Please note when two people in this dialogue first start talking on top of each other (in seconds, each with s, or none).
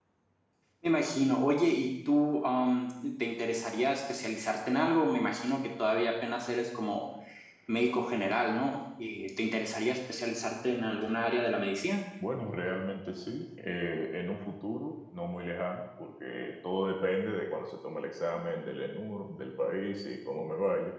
none